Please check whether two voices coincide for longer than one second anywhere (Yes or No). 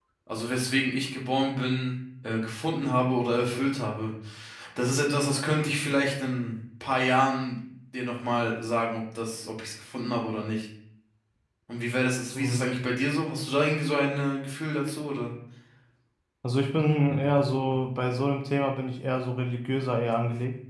No